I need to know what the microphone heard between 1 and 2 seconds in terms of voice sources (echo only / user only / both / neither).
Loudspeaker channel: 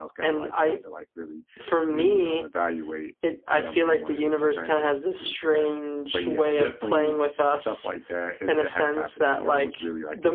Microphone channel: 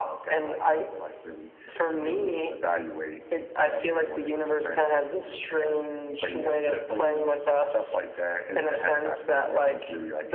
echo only